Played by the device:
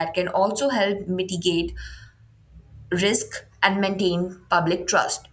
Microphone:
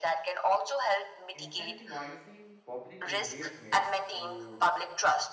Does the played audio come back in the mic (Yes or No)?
Yes